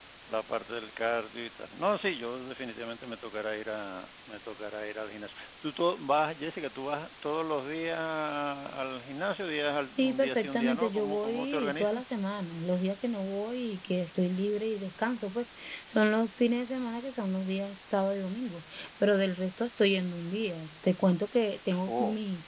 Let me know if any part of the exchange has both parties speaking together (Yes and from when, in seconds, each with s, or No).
Yes, from 10.0 s